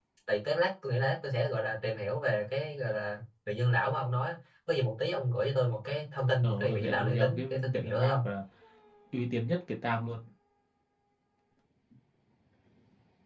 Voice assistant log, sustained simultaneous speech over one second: present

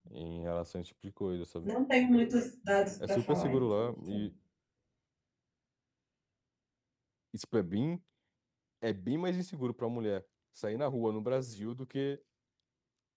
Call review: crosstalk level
present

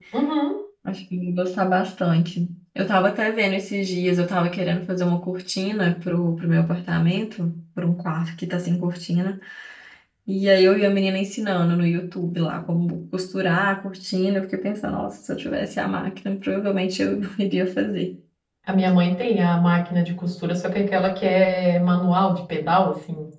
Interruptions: none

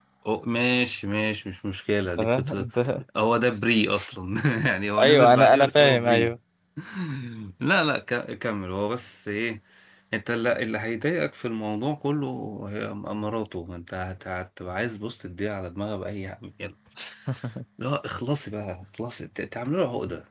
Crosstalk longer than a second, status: present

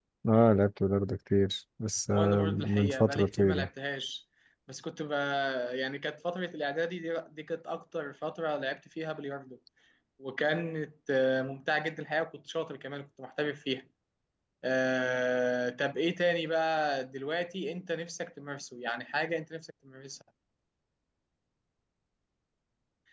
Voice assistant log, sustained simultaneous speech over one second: present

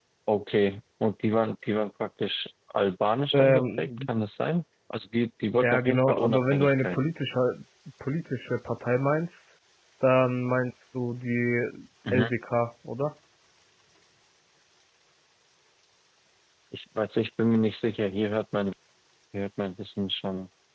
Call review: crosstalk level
present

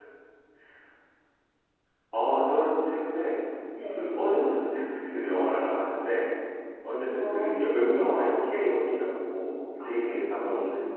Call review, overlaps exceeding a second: none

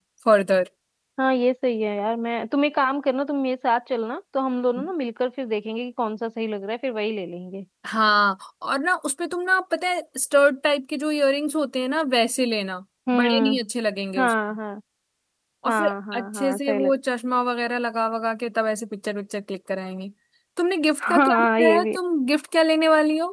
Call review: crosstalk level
present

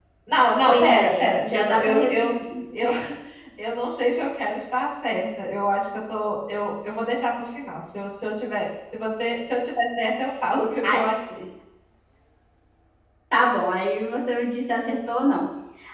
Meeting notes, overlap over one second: present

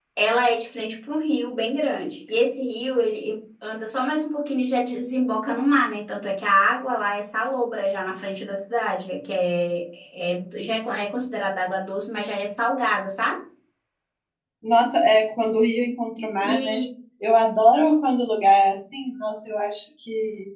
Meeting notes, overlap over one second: none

